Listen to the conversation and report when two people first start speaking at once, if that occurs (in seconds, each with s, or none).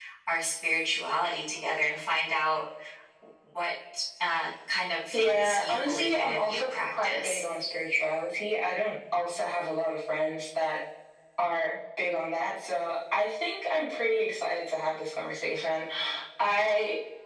5.1 s